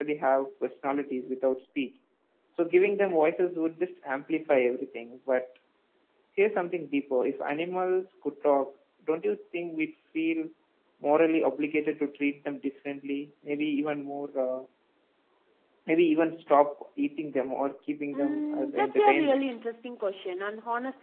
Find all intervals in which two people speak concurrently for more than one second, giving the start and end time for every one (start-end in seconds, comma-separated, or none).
18.1-19.4